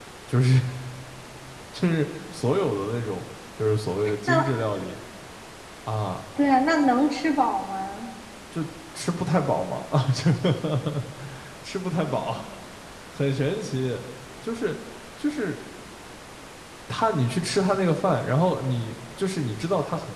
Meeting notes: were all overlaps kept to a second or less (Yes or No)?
Yes